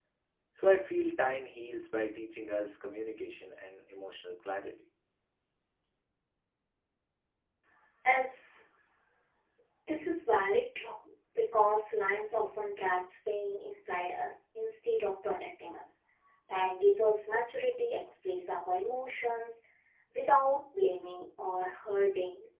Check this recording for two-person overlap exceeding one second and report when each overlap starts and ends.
none

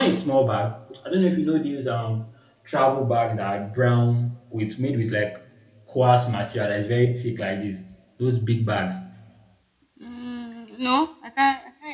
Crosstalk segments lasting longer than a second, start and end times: none

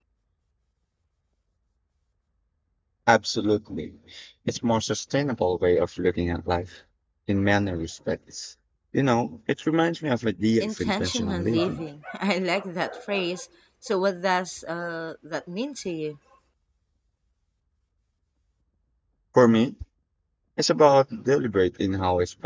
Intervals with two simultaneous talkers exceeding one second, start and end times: 10.6-11.8

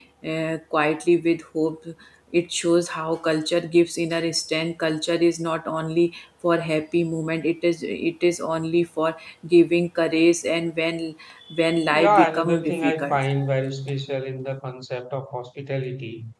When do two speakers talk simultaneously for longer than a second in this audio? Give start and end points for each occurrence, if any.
11.9-13.2

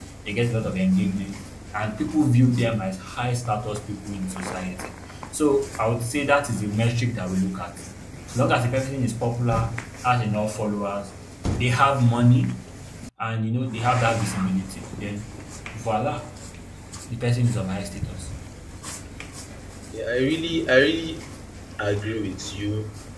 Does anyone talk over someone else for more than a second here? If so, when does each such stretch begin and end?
none

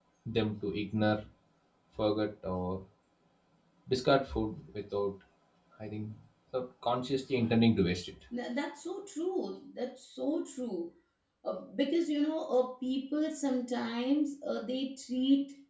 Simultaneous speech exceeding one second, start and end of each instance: none

